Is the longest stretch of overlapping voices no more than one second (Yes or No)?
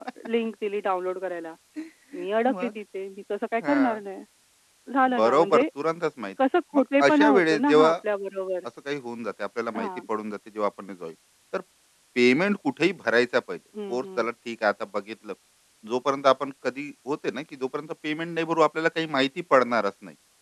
No